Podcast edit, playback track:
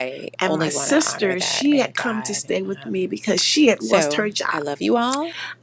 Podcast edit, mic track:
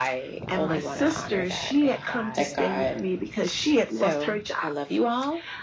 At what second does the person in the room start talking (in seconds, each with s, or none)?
1.9 s